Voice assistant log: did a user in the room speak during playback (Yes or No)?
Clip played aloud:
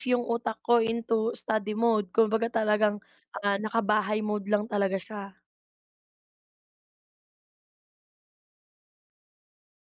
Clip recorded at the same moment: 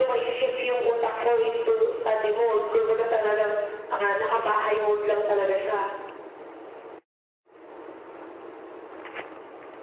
No